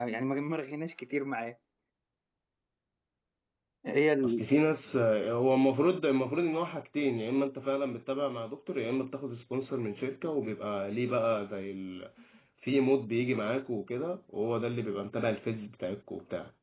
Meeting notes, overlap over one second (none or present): none